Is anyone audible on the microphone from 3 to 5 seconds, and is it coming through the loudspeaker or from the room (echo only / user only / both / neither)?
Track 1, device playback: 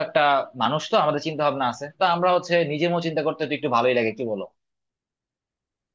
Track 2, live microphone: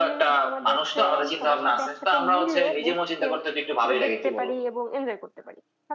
both